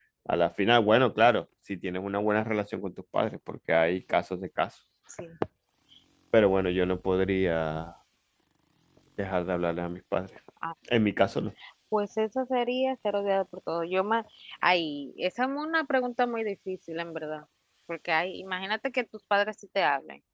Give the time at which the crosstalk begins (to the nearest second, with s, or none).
none